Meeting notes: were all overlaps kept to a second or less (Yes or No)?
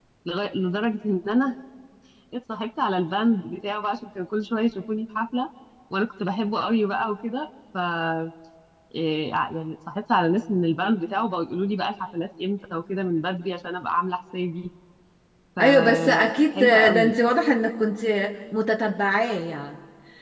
No